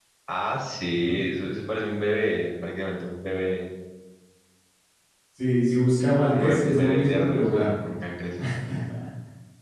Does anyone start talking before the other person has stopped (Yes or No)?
Yes